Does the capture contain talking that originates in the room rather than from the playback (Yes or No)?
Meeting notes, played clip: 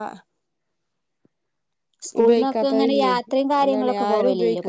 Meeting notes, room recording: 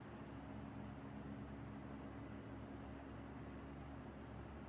No